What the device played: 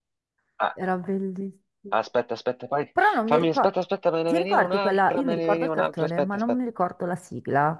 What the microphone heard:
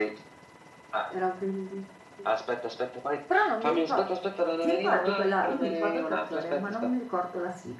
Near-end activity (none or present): none